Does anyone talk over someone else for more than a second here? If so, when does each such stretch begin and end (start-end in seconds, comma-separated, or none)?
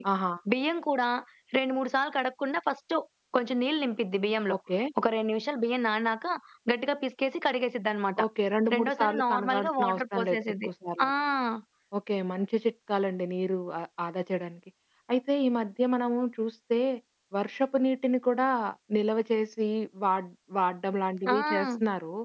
8.7-10.7